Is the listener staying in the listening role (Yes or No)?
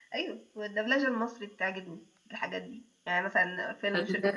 Yes